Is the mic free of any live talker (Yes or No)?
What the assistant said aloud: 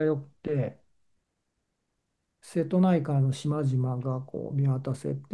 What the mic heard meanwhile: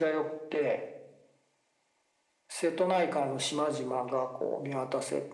Yes